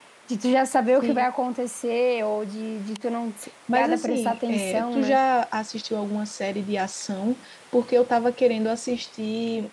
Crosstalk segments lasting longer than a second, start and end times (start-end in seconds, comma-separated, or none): 3.7-5.2